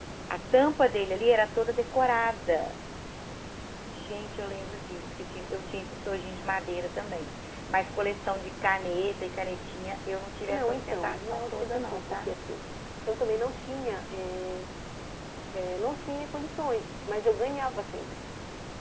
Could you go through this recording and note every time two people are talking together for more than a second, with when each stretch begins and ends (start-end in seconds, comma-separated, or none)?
10.5-12.3